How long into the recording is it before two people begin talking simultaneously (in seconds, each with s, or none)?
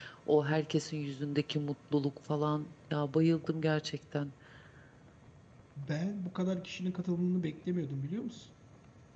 none